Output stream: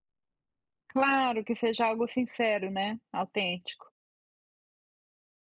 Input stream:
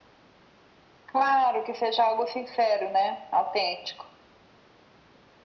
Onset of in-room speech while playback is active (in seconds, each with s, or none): none